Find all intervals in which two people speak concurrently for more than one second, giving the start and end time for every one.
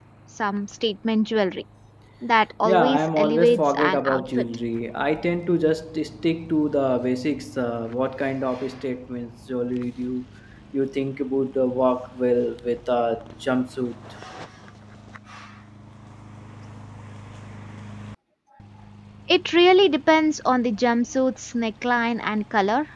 2.6-4.4

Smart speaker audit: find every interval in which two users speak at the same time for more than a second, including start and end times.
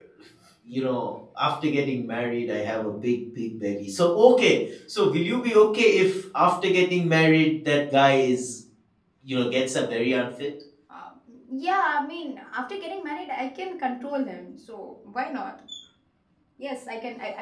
none

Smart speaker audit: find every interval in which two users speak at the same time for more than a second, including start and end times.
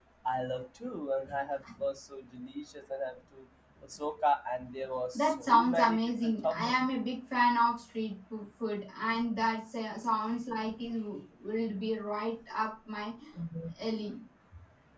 5.1-6.9

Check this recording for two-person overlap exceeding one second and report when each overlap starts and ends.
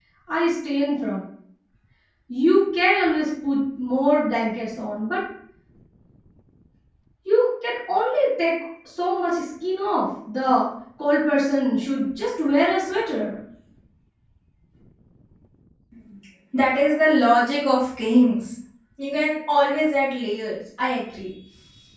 none

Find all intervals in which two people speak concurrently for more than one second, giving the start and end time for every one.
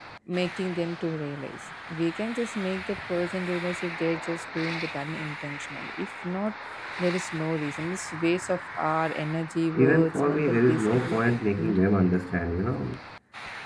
9.7-11.8

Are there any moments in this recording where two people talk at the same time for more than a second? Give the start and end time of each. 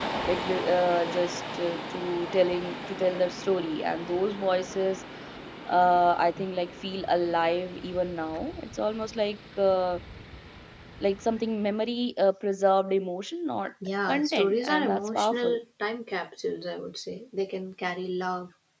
14.1-15.6

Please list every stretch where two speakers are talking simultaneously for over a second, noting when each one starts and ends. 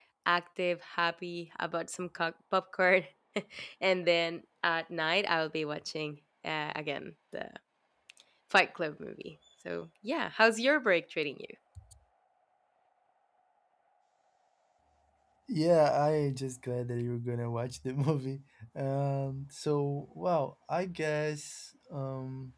none

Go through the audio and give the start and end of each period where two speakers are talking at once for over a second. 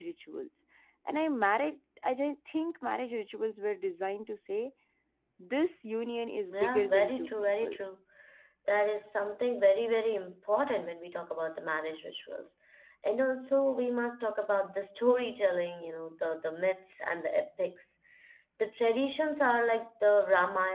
6.5-7.8

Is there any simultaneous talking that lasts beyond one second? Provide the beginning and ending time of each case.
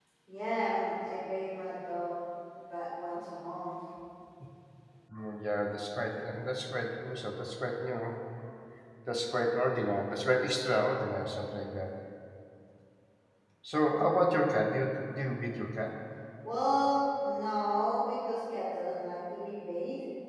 none

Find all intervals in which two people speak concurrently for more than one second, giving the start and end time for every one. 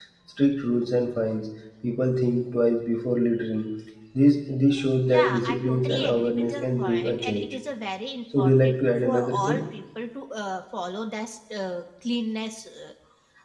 5.1-7.5, 8.4-9.6

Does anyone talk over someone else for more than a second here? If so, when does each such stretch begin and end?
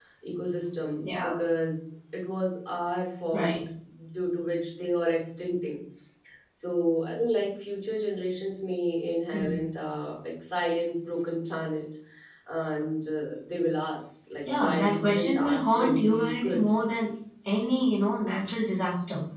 14.6-16.6

